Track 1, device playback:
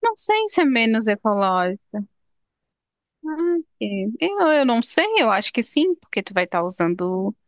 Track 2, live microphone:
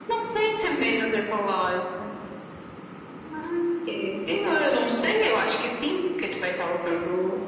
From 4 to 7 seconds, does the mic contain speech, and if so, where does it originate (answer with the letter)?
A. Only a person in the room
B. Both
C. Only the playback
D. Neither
C